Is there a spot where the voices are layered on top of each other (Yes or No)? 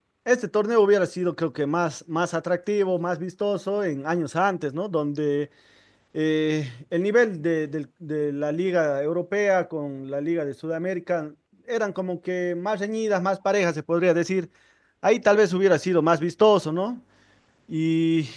No